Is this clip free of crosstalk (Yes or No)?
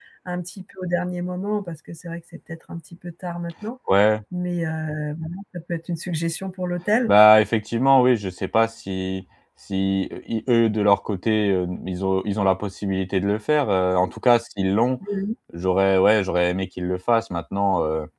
Yes